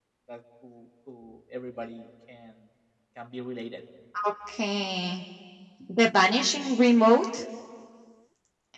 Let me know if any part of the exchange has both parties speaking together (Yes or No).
No